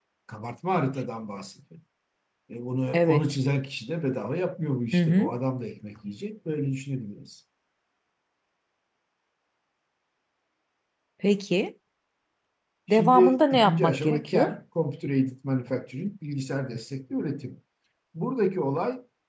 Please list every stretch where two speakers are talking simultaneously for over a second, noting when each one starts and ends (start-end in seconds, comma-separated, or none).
12.9-14.5